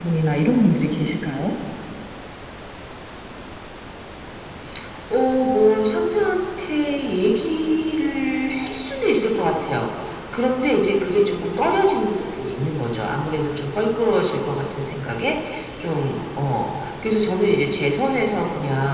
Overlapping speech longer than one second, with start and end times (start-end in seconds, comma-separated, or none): none